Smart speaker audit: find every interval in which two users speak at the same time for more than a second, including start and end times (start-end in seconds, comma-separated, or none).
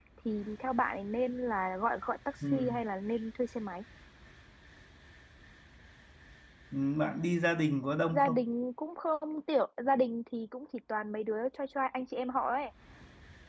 none